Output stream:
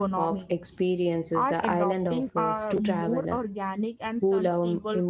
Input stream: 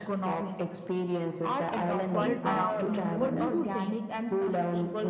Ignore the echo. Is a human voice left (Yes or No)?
Yes